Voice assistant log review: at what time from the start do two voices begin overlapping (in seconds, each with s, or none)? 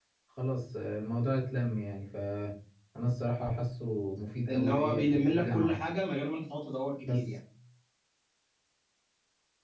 4.5 s